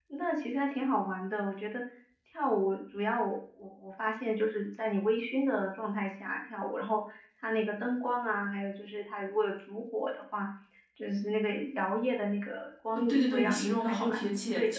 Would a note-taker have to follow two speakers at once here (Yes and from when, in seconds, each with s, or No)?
Yes, from 13.0 s